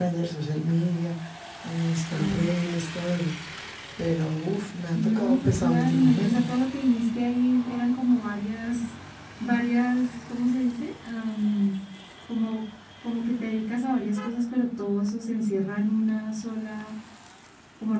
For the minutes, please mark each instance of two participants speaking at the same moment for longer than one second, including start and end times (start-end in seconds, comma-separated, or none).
4.9-6.4